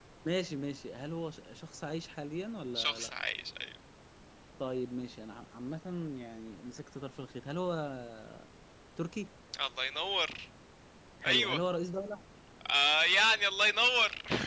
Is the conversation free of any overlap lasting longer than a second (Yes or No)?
Yes